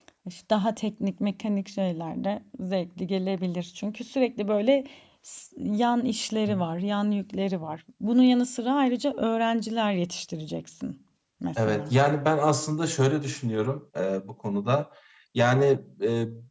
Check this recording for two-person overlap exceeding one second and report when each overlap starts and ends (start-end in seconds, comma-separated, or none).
none